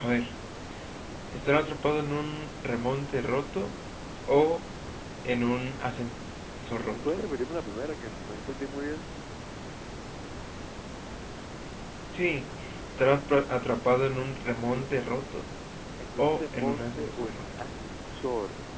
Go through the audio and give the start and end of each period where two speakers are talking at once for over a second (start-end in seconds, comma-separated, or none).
16.2-17.4